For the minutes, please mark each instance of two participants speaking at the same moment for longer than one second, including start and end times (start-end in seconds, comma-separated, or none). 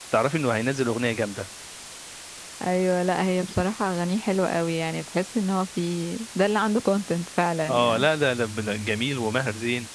none